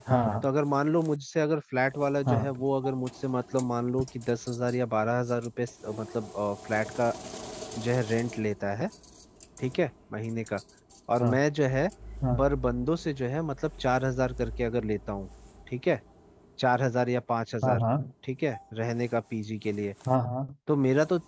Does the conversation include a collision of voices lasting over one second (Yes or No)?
No